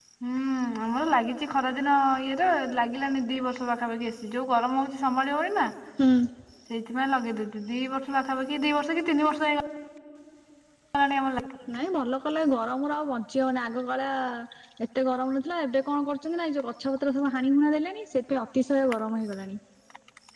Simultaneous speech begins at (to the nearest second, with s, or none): none